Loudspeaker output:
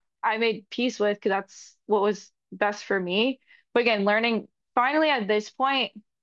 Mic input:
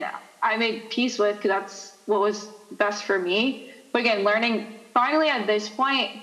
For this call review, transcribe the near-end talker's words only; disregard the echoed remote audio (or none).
none